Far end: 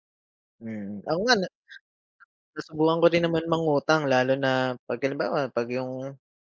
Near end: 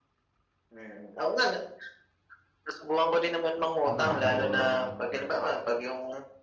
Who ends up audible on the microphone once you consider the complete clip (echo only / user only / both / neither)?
both